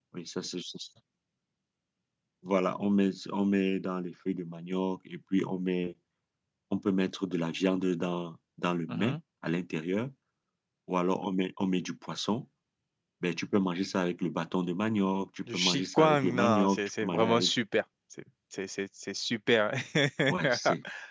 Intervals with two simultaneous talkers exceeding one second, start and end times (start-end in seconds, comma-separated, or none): 15.5-17.5